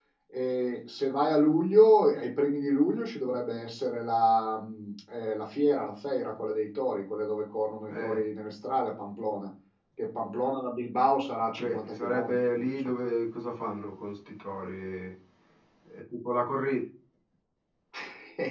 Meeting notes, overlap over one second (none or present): present